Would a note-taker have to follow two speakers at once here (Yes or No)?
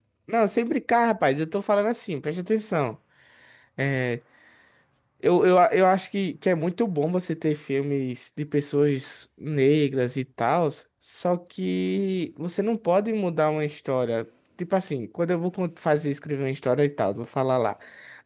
No